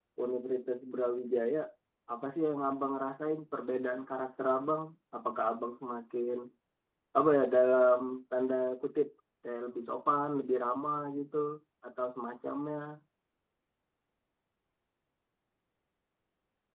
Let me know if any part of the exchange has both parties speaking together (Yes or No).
No